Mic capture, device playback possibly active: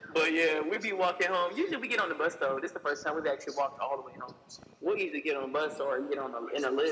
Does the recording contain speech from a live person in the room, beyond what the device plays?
No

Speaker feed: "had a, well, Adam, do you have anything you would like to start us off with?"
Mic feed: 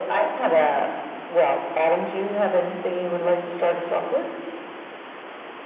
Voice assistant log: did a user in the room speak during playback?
No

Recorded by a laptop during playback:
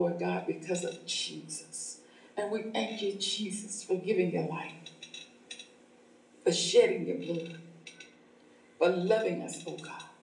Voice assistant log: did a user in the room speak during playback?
No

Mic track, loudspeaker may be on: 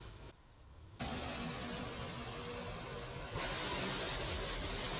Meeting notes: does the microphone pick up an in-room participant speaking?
No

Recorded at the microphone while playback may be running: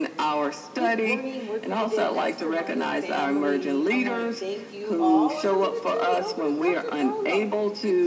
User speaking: Yes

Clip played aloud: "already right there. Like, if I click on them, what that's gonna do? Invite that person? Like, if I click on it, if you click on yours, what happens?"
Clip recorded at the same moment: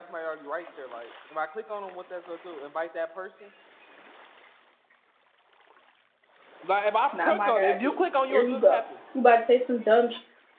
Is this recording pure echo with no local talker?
No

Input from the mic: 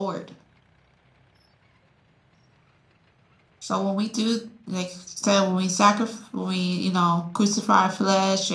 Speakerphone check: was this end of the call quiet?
Yes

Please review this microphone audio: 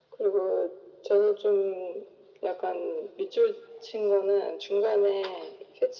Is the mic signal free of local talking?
Yes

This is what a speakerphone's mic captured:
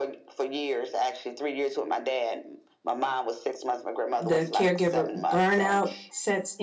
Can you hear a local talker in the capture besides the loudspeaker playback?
Yes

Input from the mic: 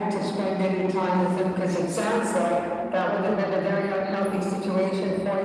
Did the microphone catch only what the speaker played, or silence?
No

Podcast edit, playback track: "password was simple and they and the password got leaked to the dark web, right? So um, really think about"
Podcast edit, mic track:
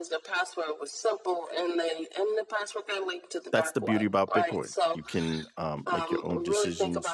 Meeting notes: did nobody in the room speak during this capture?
No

